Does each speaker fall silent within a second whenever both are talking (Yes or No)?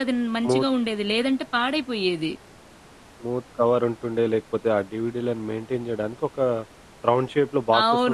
Yes